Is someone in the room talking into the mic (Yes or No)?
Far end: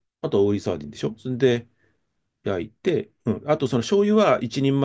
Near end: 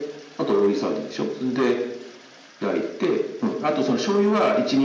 No